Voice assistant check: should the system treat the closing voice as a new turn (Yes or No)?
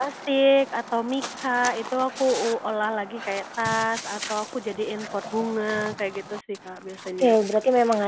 Yes